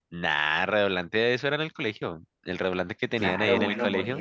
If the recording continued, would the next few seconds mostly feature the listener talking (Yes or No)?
Yes